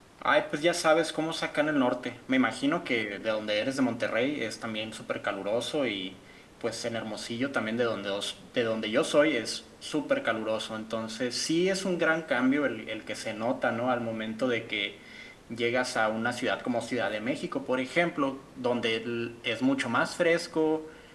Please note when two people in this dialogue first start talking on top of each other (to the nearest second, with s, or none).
none